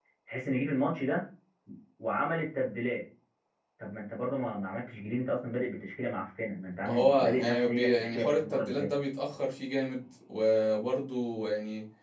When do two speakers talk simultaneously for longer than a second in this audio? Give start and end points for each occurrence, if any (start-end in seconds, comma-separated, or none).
6.8-8.9